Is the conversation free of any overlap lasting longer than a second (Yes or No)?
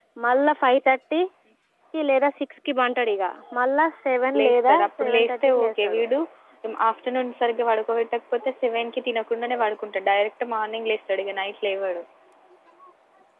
No